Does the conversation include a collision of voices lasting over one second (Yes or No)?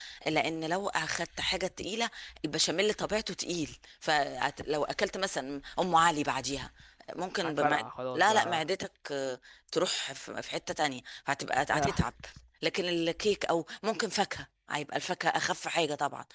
No